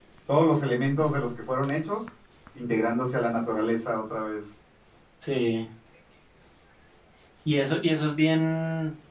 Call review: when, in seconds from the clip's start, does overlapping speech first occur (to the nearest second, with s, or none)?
none